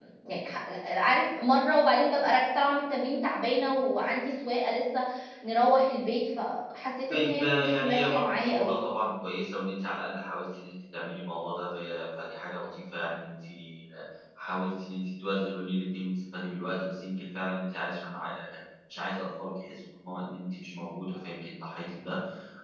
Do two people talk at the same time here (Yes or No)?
Yes